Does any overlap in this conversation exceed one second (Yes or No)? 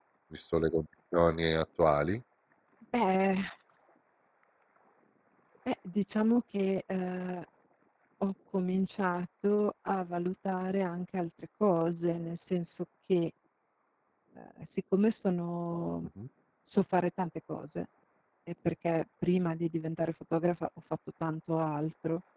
No